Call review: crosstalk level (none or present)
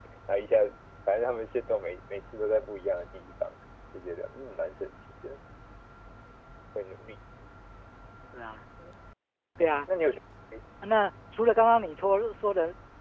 none